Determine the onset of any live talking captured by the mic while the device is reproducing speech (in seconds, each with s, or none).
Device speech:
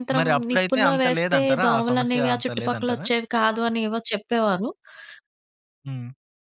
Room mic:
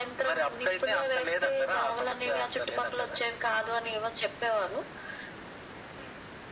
none